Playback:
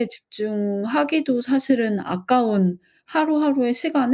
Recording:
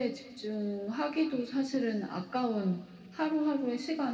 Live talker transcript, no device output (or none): none